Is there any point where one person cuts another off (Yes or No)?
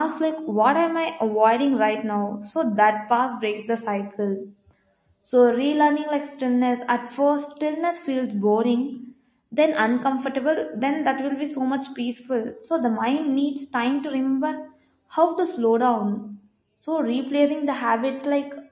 No